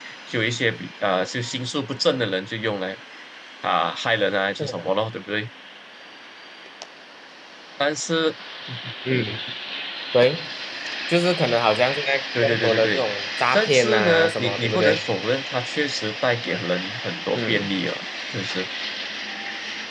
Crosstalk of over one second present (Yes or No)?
Yes